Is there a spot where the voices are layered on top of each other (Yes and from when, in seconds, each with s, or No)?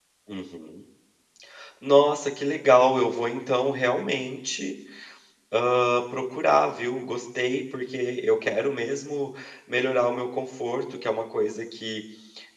No